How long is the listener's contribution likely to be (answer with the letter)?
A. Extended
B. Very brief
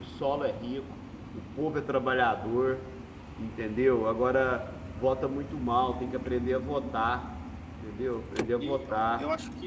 A